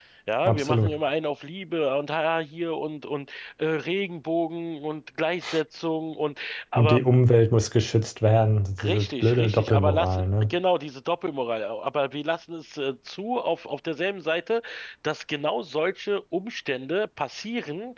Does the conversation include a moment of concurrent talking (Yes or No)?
Yes